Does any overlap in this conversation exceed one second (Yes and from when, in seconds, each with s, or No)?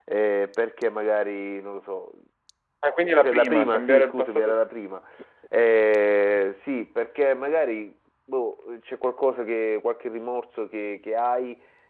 Yes, from 3.2 s